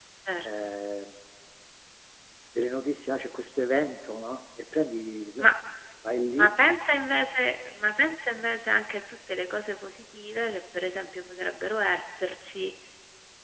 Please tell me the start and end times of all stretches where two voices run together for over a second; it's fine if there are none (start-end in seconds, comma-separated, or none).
none